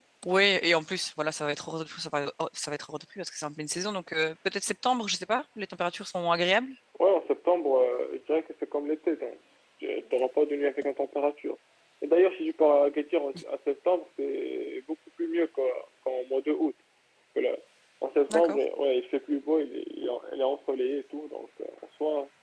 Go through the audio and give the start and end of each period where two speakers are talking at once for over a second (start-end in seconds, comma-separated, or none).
none